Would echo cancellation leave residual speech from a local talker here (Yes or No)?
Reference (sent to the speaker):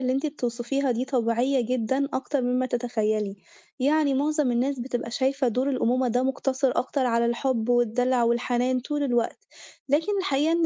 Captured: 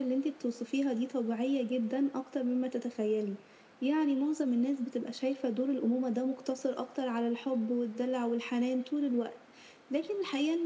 No